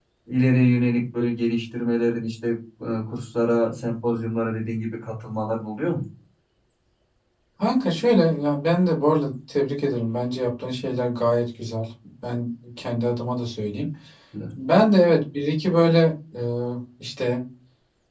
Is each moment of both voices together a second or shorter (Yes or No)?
Yes